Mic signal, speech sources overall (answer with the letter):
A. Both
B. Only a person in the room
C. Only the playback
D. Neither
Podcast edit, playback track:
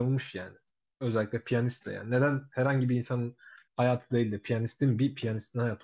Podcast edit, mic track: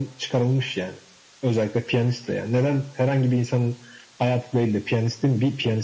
C